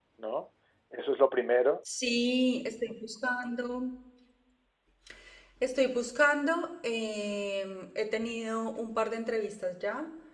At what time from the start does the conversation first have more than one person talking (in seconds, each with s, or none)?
none